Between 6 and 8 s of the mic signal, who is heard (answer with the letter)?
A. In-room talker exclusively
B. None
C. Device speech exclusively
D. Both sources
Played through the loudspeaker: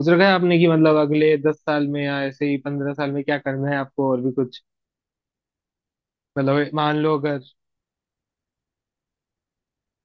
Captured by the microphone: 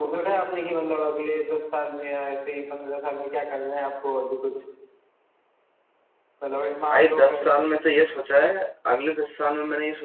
D